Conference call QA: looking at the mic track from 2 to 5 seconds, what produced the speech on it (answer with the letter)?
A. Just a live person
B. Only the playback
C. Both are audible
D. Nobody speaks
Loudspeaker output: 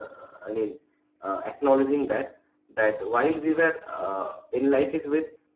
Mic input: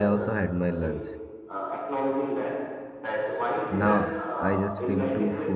C